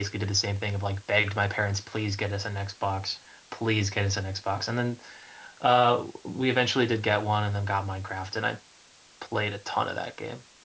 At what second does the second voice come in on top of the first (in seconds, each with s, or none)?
none